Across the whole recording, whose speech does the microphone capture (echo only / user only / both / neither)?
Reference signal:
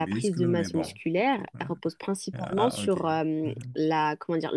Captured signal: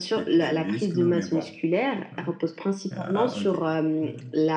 echo only